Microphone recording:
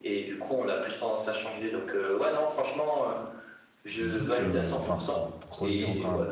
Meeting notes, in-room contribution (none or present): present